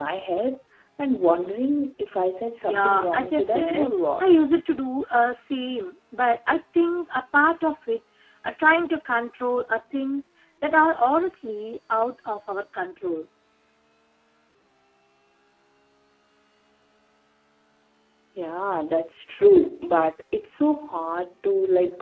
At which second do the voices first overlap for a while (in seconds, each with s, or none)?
2.6 s